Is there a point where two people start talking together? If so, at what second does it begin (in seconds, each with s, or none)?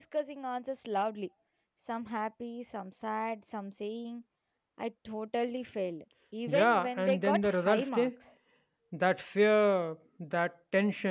6.5 s